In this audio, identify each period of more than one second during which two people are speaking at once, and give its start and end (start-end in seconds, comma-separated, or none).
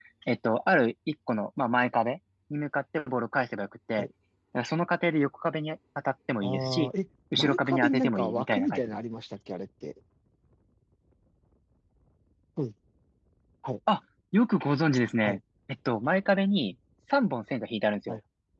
7.4-9.0